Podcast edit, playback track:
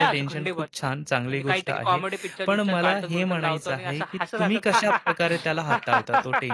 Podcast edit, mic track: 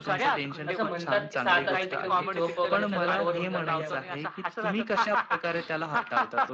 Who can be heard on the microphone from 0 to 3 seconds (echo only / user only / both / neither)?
both